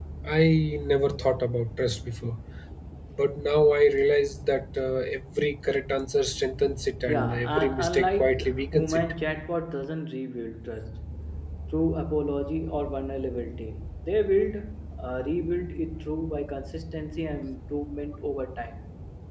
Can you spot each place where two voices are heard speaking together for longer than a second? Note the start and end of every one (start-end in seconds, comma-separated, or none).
7.1-9.1